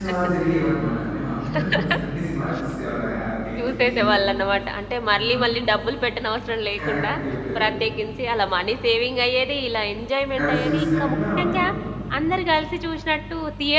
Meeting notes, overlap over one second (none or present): present